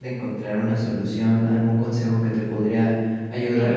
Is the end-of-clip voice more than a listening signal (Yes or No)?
No